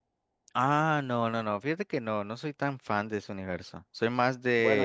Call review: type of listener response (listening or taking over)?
listening